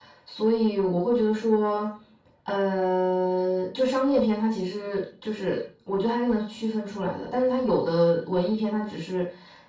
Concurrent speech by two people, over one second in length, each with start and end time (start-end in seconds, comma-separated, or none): none